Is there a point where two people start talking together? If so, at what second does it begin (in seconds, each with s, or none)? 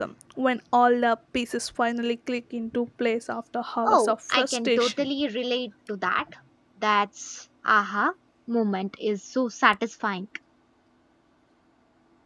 3.8 s